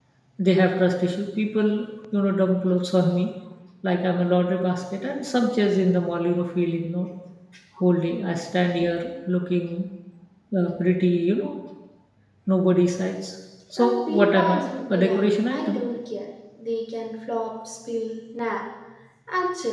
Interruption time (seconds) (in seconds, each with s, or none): 13.8 s